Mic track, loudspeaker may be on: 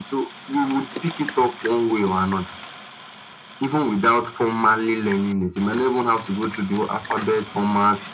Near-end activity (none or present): none